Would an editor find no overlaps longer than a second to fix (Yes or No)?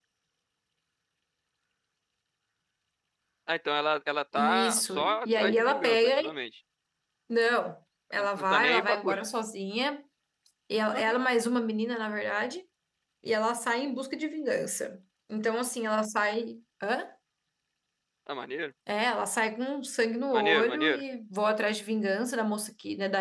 No